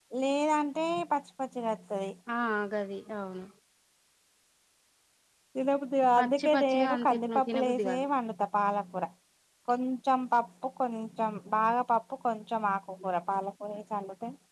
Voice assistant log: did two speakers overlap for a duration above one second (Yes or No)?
Yes